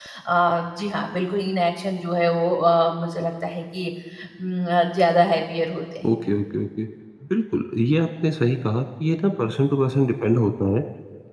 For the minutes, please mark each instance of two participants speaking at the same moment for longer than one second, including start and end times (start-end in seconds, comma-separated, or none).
none